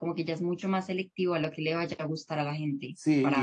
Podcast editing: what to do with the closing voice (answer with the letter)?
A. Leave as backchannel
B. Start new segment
B